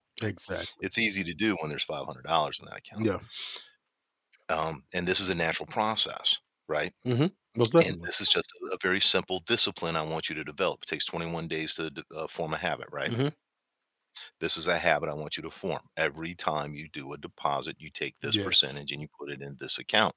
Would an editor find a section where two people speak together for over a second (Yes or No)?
No